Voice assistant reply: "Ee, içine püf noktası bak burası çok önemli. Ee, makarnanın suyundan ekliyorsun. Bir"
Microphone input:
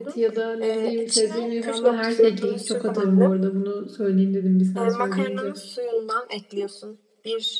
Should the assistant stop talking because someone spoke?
Yes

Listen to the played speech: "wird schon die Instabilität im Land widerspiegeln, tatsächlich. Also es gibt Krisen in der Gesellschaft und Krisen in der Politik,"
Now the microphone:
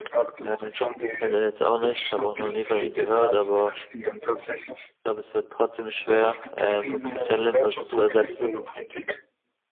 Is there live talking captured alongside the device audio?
Yes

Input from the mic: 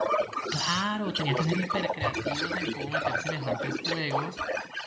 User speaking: Yes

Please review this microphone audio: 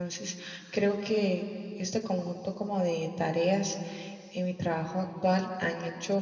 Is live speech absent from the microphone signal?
Yes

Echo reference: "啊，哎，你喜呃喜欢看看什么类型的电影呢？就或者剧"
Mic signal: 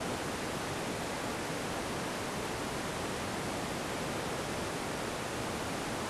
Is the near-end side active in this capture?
No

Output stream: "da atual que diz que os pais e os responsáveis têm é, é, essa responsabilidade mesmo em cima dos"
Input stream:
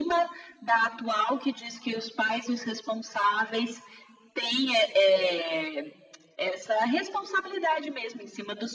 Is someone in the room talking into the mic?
No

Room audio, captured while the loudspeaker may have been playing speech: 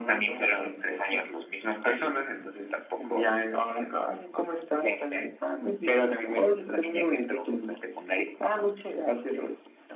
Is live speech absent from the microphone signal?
Yes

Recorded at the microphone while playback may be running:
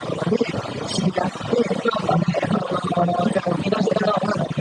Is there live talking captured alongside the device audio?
No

